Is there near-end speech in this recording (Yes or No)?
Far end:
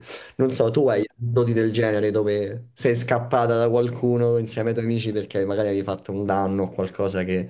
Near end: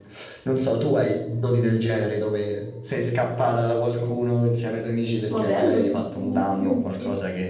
Yes